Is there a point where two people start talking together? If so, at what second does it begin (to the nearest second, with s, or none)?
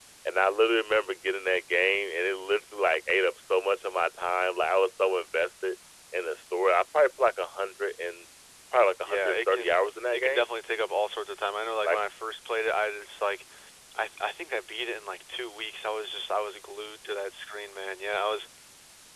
9 s